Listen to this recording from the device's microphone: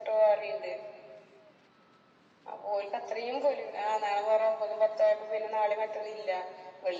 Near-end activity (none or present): none